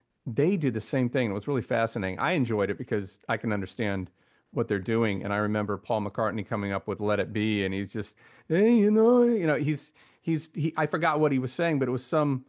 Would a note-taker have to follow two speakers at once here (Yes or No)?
No